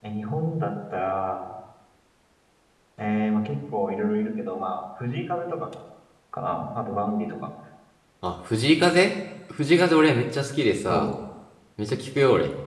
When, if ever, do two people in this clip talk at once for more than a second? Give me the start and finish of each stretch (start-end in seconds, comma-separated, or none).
none